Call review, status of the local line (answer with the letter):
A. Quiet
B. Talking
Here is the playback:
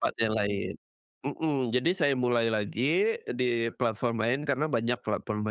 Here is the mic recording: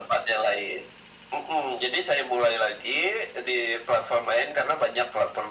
A